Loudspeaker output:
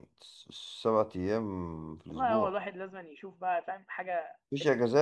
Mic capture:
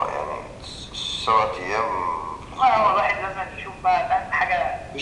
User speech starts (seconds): none

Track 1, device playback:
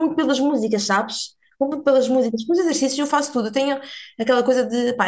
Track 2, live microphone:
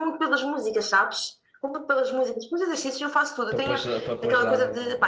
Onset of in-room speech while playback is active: 3.5 s

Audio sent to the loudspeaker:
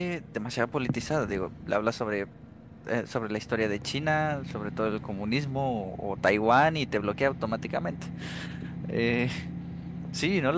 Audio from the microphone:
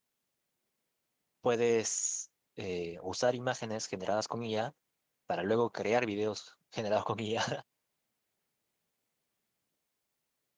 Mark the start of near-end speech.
1.4 s

